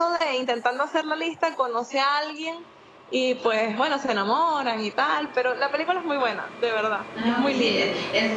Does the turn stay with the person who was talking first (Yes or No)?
No